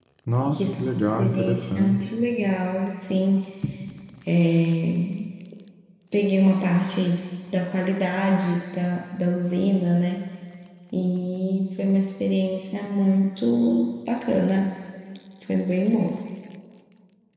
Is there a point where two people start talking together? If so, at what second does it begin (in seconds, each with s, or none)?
0.5 s